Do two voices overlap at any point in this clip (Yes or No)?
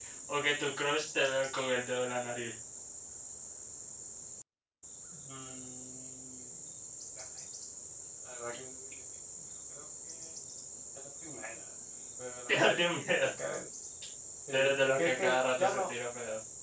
Yes